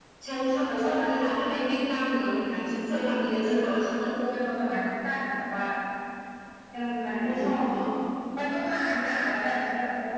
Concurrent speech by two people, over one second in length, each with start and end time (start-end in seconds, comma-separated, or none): none